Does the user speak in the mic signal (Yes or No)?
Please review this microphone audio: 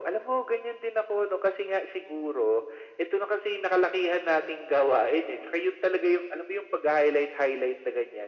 No